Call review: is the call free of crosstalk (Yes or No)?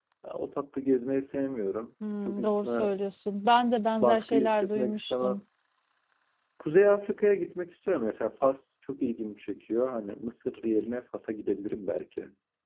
No